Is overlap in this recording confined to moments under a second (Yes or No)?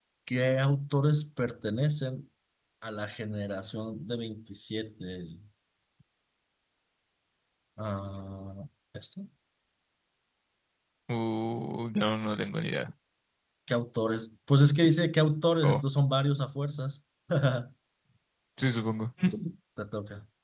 Yes